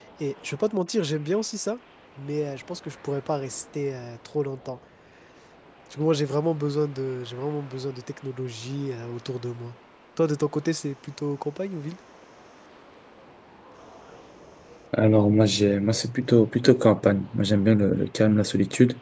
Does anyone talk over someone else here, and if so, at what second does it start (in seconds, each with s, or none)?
none